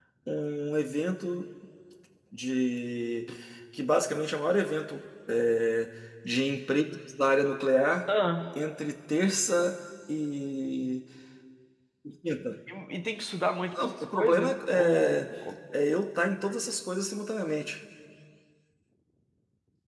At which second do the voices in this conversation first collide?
13.8 s

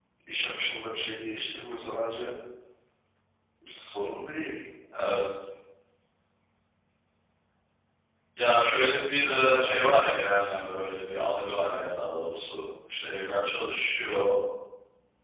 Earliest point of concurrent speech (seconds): none

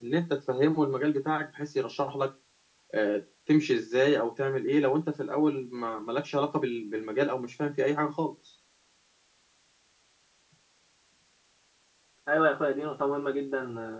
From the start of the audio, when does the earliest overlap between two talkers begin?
none

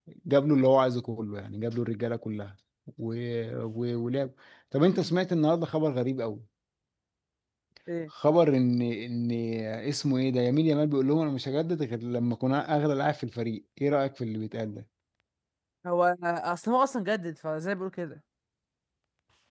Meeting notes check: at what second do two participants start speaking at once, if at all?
none

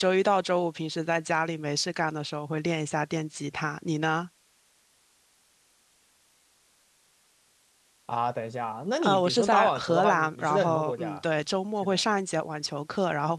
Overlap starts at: 9.0 s

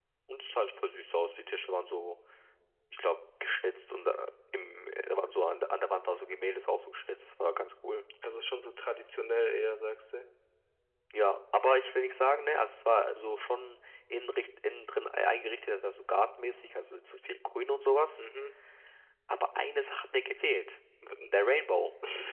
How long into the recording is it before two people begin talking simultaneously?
none

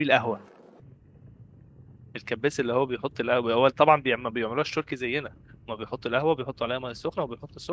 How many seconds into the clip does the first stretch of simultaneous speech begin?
none

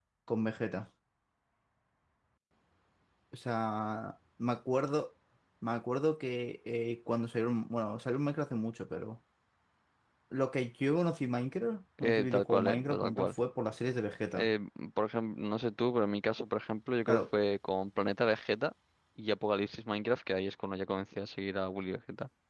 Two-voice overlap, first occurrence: 12.0 s

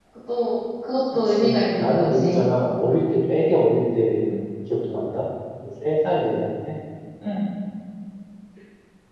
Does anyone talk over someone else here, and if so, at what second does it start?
1.1 s

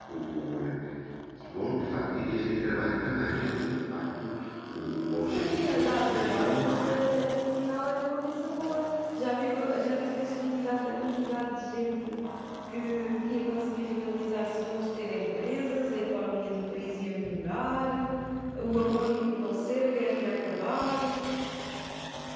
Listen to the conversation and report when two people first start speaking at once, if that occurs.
5.3 s

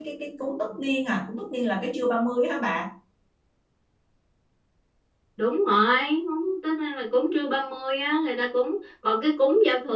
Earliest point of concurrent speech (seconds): none

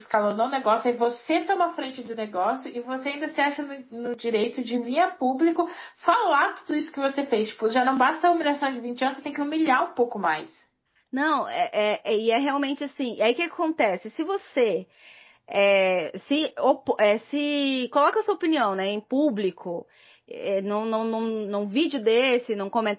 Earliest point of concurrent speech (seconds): none

